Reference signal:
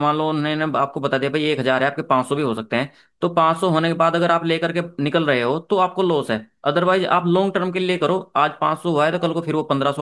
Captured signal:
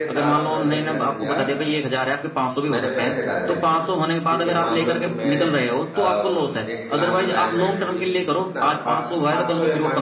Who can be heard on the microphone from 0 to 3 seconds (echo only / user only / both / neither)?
both